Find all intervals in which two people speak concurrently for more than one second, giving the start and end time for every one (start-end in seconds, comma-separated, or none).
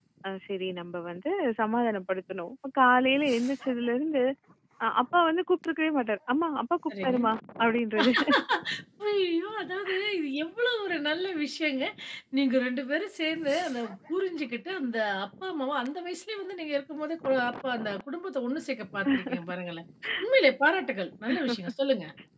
none